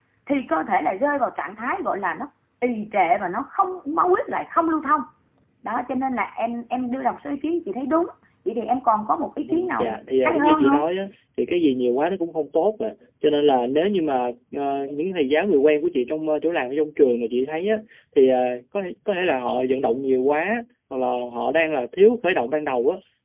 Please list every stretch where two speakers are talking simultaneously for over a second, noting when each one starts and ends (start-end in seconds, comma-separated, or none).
9.4-10.8